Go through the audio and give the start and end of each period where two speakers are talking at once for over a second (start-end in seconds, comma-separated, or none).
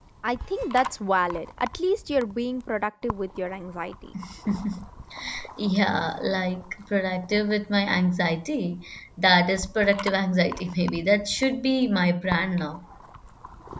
none